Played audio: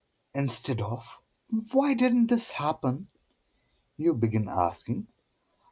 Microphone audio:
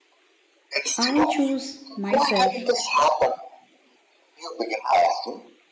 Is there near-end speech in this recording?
Yes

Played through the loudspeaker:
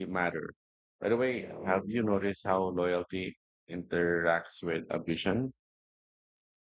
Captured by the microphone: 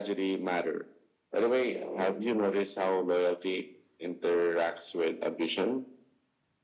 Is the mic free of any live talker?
Yes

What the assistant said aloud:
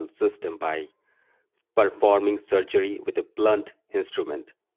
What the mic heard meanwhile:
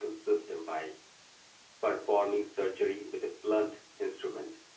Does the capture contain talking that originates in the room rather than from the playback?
No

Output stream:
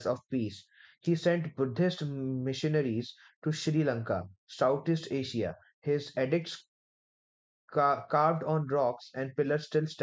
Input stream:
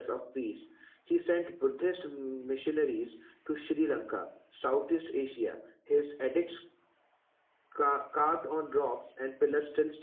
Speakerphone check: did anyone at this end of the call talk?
No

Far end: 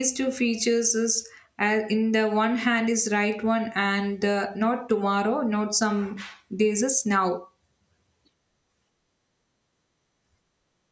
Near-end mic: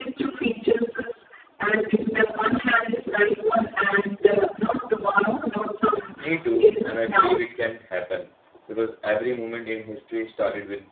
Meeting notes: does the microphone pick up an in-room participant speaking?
Yes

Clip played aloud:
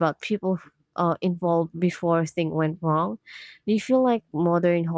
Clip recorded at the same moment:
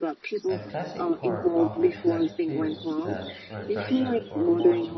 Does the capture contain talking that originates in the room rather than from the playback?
Yes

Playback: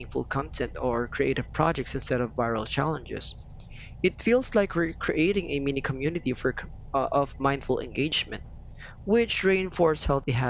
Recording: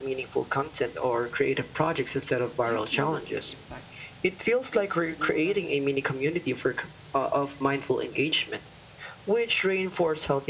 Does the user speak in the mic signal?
Yes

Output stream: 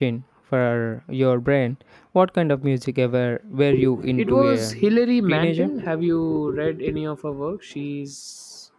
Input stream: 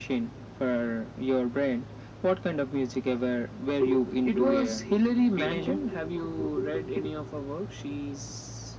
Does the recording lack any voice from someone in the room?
Yes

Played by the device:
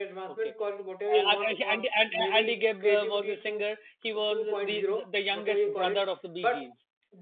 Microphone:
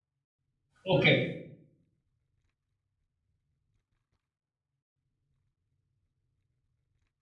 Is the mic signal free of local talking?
No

